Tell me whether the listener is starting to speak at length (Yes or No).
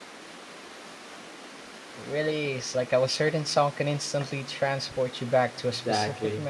Yes